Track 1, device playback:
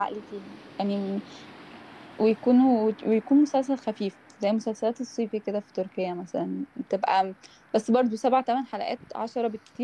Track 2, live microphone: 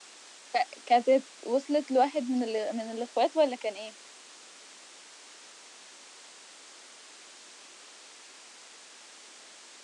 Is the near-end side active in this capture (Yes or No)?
Yes